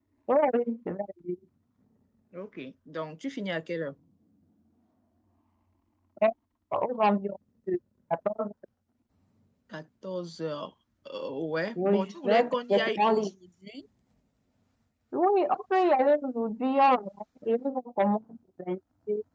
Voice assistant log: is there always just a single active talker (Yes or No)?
No